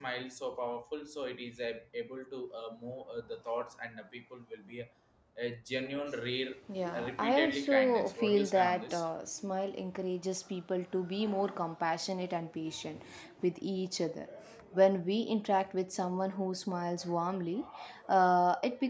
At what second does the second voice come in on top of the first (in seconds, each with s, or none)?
6.9 s